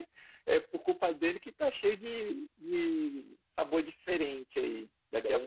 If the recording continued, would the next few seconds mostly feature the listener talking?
No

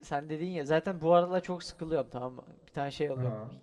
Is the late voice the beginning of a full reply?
No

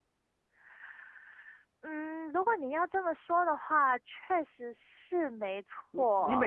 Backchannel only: No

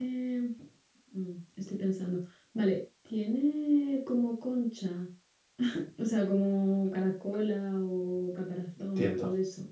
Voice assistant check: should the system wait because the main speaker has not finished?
No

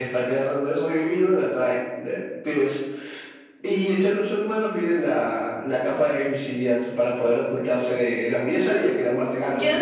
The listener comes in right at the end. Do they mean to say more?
Yes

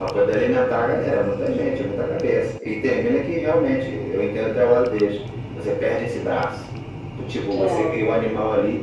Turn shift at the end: No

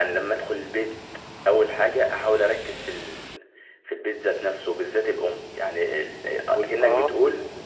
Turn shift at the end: No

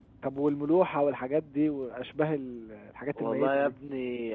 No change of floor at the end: No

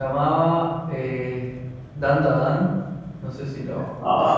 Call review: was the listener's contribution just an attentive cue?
No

